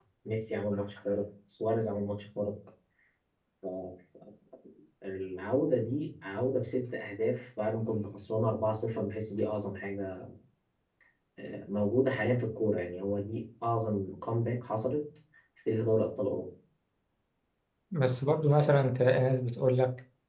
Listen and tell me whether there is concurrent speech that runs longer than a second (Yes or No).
No